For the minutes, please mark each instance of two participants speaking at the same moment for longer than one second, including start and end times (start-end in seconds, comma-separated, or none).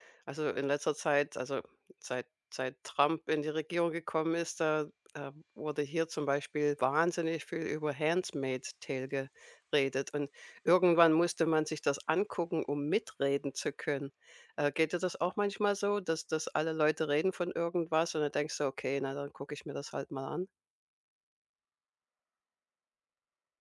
none